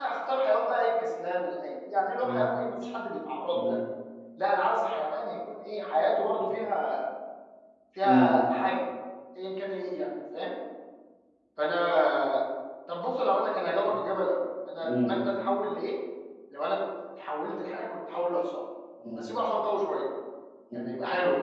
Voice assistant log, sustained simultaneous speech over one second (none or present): none